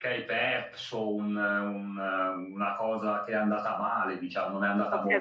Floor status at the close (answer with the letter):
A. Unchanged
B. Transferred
B